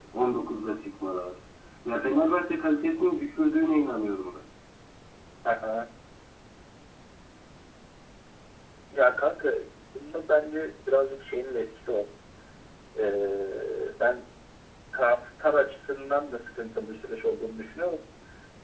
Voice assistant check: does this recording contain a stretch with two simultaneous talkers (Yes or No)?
No